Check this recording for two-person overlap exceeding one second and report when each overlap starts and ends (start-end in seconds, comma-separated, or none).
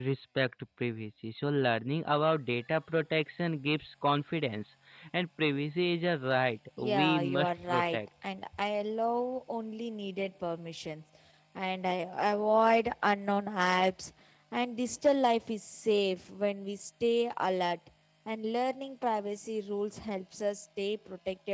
6.8-8.0